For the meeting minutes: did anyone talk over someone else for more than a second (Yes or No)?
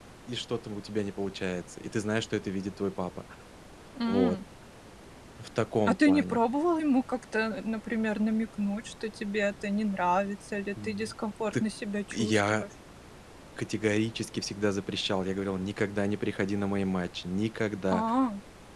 No